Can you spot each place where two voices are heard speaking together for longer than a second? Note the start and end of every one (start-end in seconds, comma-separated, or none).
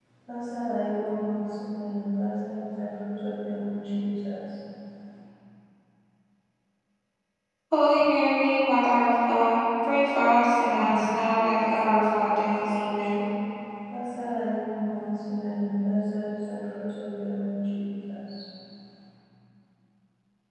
10.8-13.2